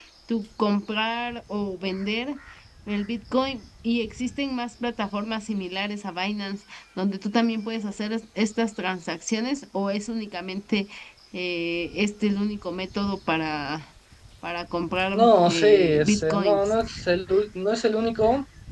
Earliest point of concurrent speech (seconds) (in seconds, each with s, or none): 15.1 s